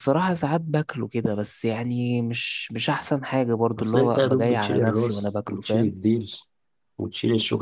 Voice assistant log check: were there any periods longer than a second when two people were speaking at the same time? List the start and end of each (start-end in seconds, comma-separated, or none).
3.8-5.9